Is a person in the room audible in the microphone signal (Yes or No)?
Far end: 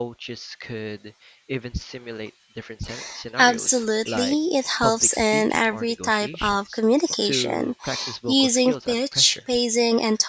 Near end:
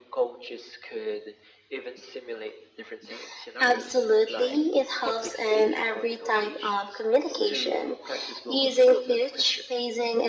No